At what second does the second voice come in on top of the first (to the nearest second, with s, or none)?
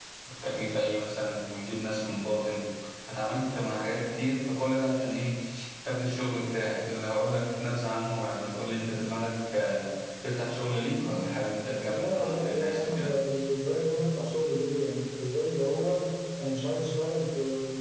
12 s